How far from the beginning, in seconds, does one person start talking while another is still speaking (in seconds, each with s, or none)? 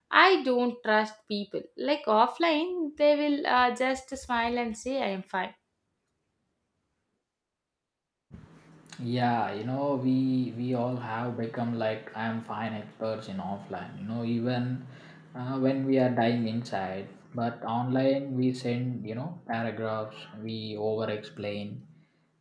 none